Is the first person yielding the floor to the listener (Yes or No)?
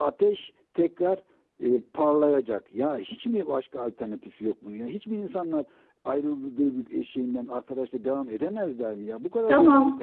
Yes